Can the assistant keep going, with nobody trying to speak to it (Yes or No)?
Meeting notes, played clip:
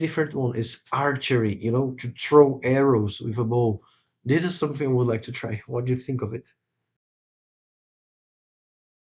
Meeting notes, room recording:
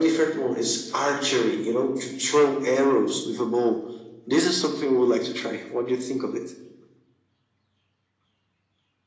Yes